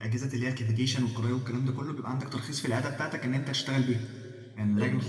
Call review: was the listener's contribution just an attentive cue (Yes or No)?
Yes